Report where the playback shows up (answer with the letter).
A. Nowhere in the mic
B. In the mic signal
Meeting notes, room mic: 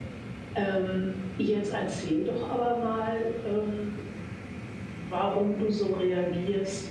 A